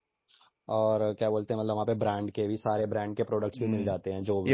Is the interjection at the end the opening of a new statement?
Yes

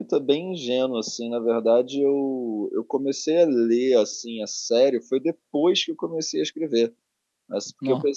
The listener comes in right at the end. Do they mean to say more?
No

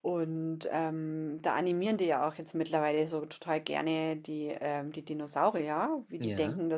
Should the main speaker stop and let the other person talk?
No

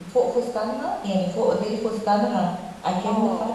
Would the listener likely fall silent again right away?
Yes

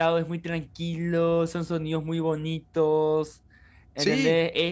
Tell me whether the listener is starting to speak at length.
No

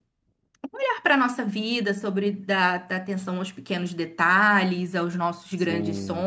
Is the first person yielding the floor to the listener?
Yes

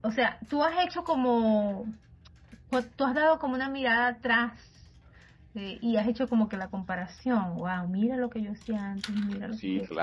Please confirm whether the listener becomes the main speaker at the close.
Yes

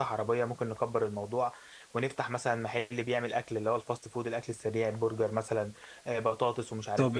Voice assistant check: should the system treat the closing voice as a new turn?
Yes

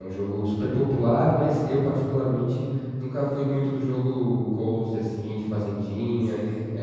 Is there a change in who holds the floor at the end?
No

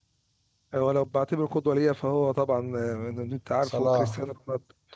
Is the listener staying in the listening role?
Yes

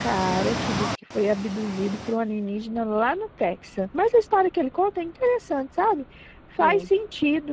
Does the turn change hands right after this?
No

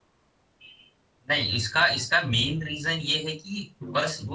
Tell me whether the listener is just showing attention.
Yes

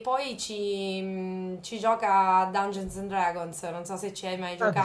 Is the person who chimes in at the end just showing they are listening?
No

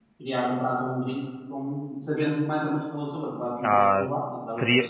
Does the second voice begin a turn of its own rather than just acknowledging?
Yes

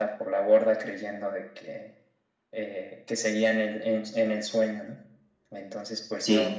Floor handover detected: No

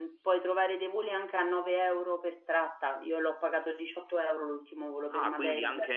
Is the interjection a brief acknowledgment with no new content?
No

